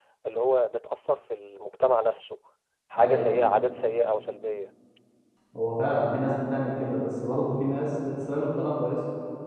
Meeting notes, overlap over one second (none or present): none